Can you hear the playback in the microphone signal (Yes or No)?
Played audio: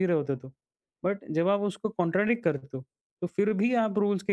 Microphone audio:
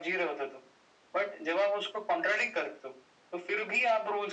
Yes